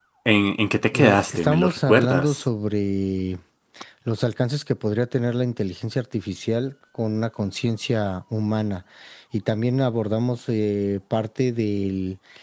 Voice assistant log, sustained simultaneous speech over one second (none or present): present